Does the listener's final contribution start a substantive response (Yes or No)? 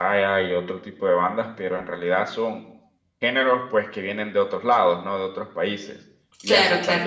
No